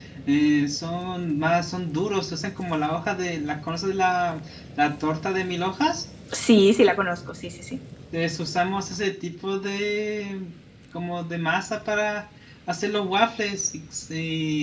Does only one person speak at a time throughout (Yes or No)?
Yes